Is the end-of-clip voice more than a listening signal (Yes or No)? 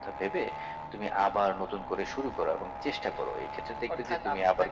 Yes